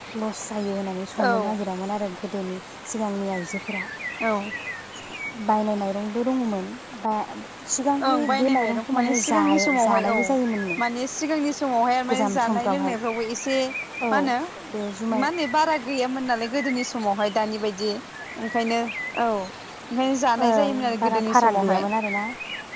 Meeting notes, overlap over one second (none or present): present